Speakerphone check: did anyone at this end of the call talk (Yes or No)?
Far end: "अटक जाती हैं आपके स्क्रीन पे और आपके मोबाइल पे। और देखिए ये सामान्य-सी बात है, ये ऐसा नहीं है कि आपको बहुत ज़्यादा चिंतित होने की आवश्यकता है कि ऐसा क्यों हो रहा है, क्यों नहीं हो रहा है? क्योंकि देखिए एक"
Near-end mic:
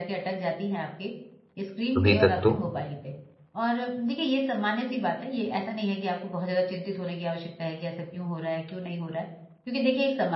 Yes